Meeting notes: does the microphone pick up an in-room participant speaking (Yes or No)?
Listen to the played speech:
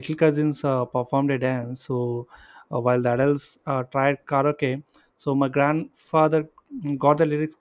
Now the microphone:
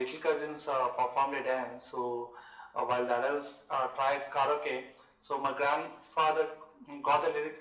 No